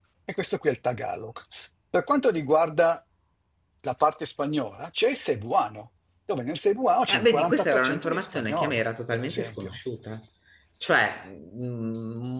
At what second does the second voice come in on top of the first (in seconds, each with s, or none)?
7.1 s